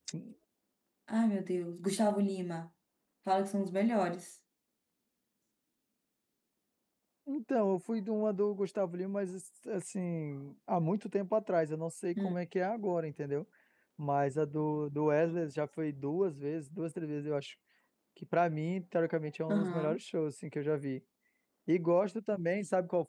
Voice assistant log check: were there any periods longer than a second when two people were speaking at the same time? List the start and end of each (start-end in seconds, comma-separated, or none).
none